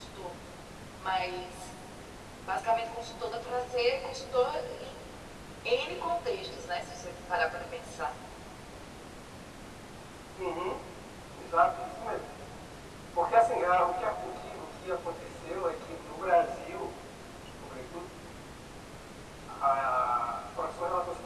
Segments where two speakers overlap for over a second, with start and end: none

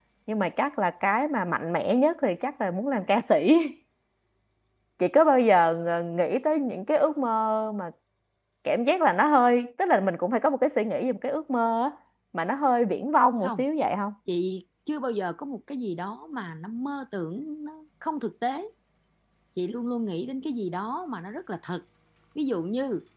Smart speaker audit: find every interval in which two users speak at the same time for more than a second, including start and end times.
none

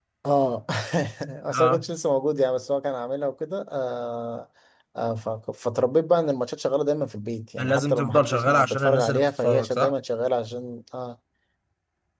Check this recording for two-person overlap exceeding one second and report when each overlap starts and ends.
7.6-9.9

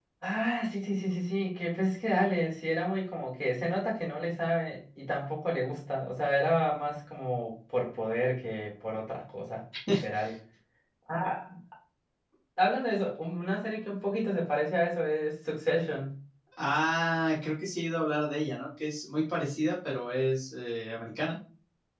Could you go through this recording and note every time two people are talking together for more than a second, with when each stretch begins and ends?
none

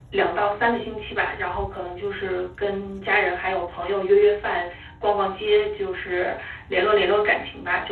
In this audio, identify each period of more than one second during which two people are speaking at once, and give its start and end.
none

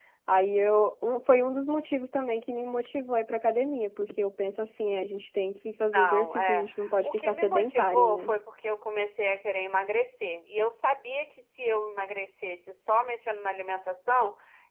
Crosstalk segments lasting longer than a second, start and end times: 5.9-8.3

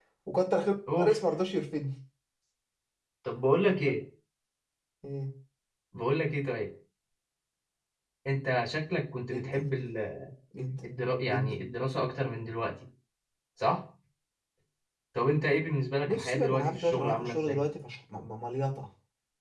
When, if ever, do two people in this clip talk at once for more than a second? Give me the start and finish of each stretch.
16.1-17.6

